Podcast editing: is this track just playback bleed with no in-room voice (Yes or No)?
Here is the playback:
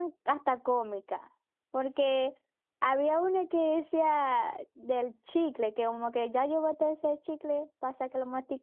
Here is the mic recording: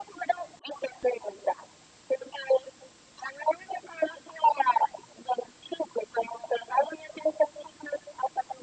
Yes